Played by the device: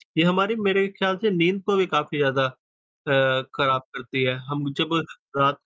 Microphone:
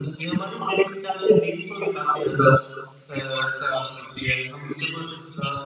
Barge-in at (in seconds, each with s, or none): none